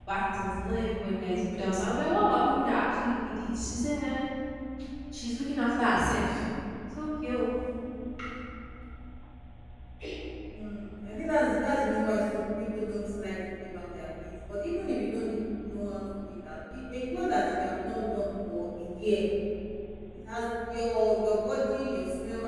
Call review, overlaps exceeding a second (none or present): none